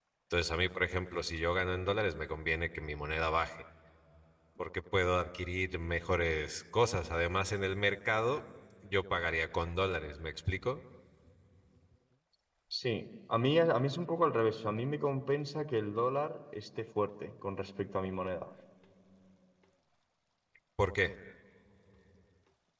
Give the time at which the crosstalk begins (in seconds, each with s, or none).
none